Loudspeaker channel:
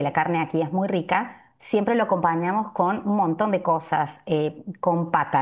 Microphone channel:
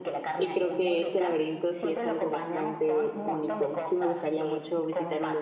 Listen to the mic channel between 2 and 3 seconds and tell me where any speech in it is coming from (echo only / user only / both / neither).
both